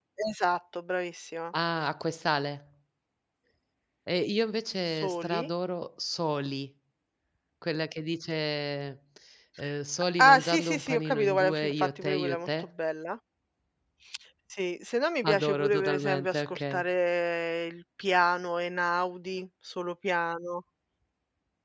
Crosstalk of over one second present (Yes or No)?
Yes